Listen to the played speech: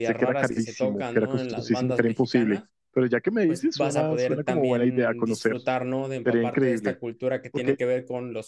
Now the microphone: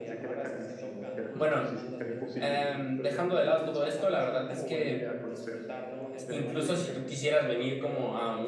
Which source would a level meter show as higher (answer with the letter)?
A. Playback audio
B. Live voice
B